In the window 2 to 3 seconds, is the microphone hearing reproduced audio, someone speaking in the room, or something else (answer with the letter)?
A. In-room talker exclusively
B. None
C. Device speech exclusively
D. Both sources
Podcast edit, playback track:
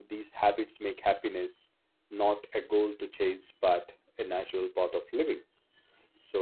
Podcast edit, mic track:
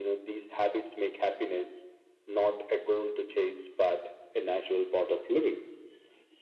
C